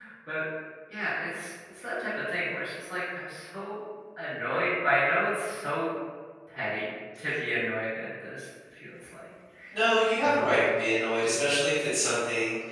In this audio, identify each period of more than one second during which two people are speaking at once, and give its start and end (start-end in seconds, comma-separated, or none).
none